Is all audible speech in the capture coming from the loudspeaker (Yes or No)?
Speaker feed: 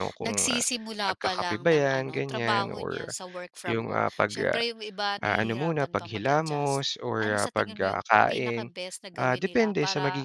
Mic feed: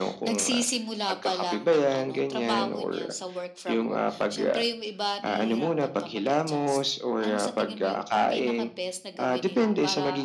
Yes